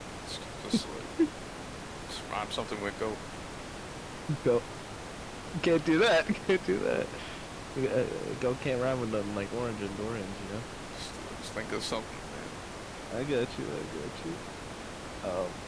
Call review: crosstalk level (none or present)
none